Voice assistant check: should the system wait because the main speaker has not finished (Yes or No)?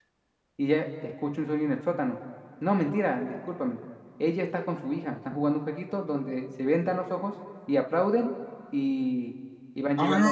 No